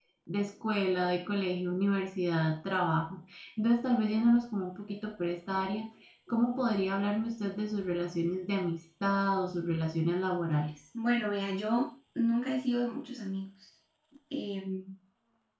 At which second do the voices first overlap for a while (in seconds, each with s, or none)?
none